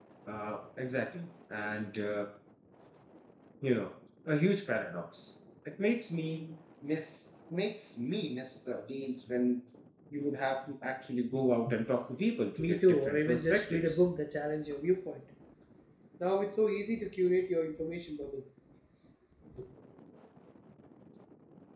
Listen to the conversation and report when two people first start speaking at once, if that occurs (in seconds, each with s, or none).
12.7 s